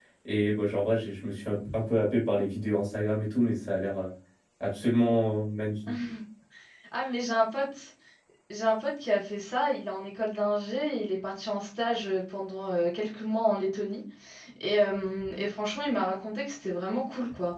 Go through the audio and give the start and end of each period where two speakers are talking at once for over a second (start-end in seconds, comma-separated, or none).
none